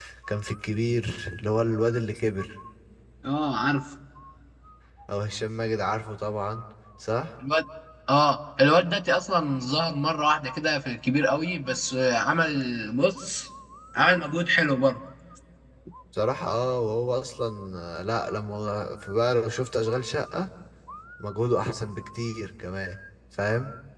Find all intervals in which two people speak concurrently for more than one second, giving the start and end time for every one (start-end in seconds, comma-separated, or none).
none